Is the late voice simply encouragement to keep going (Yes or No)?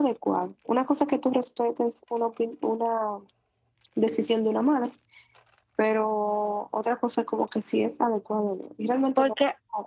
No